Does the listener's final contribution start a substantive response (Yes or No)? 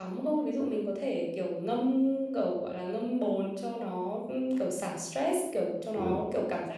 No